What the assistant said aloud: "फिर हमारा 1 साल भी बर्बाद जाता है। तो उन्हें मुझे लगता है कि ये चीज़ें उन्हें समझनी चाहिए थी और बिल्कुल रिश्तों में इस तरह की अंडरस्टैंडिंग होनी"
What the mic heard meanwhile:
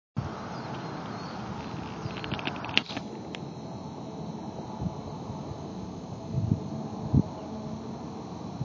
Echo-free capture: Yes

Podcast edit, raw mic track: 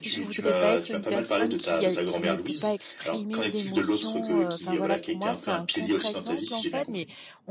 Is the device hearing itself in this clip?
Yes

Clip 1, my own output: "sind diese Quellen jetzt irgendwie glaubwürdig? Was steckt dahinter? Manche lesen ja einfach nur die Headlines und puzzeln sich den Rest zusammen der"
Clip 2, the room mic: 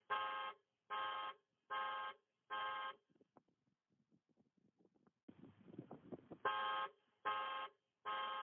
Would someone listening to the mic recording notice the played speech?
No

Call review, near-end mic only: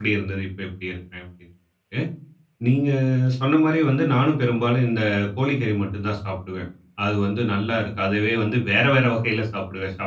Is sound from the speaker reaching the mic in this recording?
No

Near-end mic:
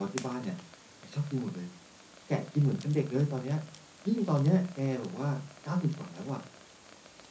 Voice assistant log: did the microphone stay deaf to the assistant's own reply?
No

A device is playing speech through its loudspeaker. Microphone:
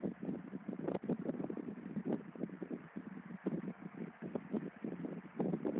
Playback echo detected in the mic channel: No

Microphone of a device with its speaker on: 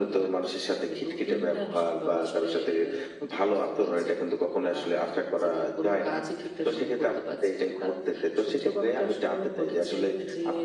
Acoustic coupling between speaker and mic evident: Yes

